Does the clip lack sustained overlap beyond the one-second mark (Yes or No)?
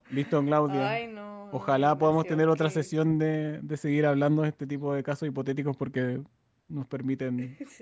No